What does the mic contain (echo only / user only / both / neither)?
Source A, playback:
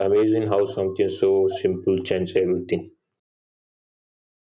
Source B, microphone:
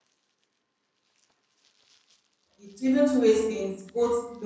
user only